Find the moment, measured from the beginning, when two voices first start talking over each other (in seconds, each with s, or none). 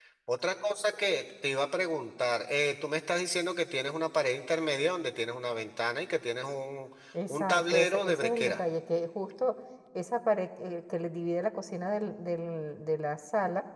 7.3 s